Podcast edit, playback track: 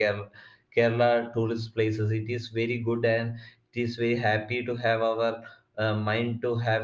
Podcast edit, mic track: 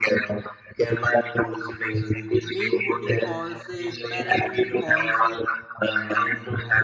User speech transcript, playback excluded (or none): Meenmuti Falls, eh, Paravali Falls, eh,